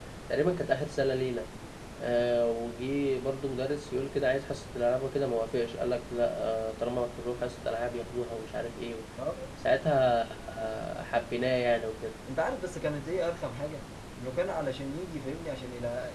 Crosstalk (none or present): none